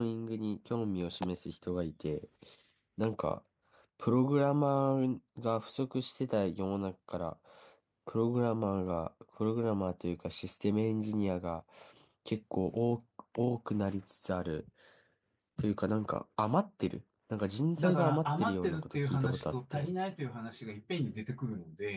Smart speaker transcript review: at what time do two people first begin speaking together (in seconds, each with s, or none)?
17.8 s